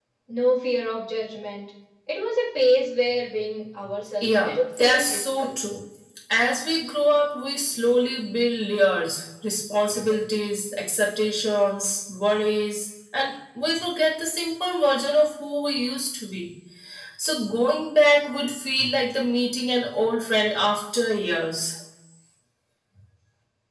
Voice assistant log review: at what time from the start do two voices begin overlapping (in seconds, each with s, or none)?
4.2 s